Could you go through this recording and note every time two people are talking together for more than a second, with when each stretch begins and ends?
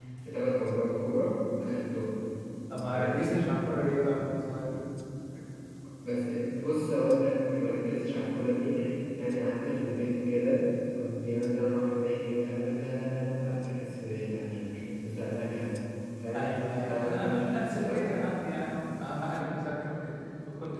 16.4-18.2

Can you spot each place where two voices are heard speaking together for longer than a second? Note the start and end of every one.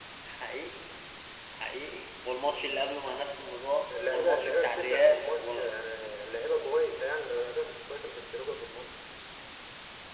4.1-5.7

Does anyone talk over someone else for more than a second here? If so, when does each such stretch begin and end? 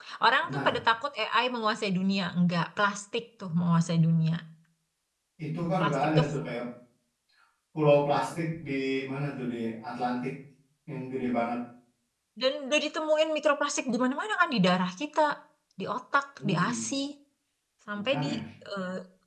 none

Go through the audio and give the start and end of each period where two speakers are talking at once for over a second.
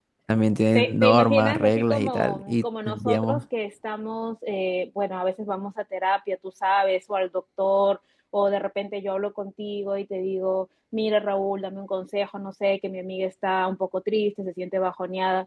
0.7-3.4

